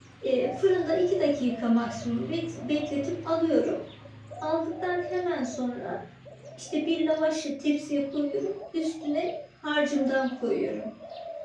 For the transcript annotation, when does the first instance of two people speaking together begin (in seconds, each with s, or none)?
none